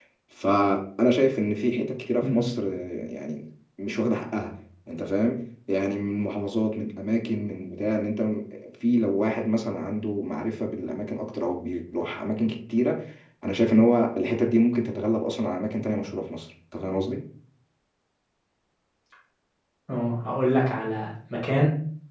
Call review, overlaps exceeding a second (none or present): none